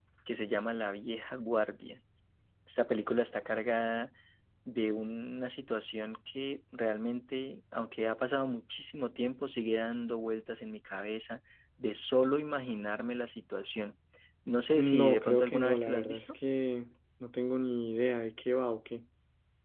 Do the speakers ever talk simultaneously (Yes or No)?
Yes